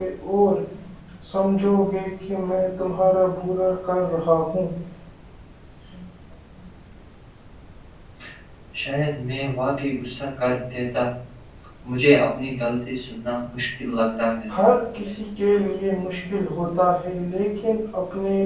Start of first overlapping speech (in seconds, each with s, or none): none